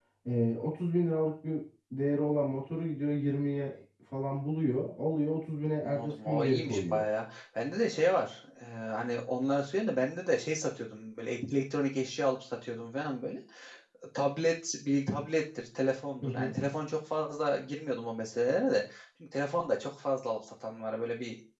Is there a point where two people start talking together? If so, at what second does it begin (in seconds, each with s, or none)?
5.8 s